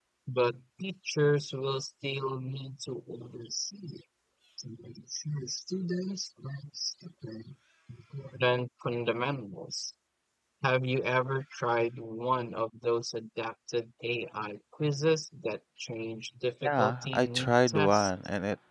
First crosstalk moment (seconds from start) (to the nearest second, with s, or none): 17 s